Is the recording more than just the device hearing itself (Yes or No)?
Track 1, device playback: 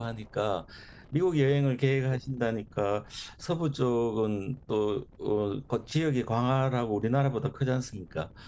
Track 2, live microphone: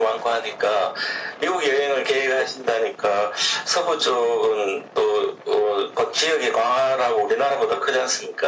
No